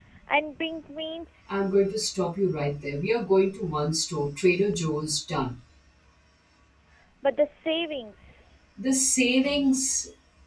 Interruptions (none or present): none